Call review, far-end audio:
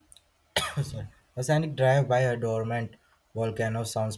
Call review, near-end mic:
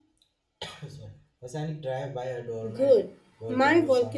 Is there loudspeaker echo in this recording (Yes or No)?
Yes